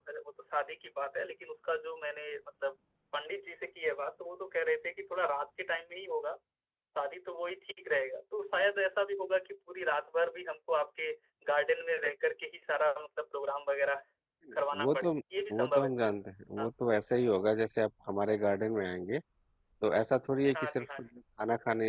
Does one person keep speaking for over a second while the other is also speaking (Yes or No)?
No